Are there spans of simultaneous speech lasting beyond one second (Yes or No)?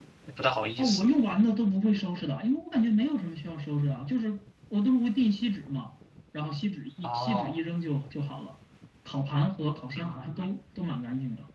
No